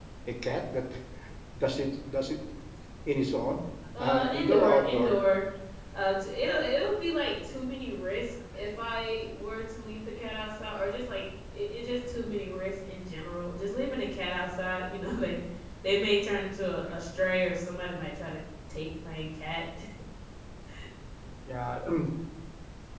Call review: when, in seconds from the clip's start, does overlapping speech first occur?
4 s

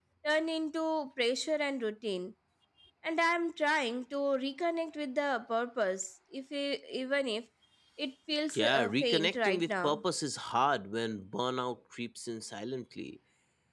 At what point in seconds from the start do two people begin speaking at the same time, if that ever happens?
9 s

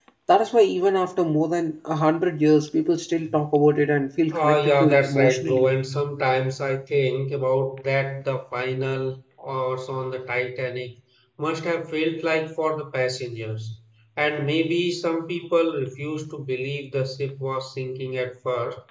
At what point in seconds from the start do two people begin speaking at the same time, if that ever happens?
4 s

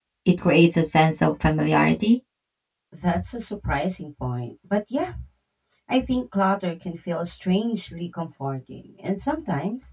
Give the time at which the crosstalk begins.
none

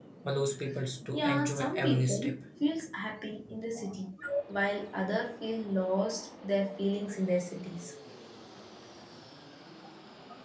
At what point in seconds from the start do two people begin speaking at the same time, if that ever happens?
1 s

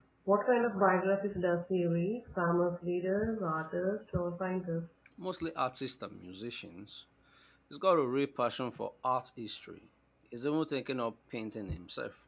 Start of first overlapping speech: none

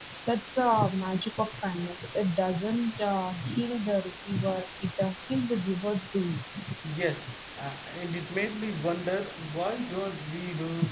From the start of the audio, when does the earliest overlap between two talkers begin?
none

